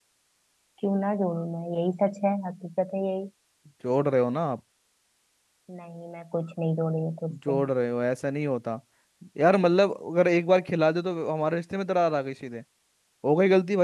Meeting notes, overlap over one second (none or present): none